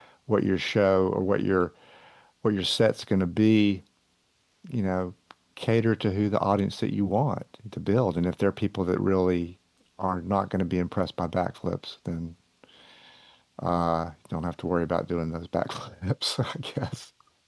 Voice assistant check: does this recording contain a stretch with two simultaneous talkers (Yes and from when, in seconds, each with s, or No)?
No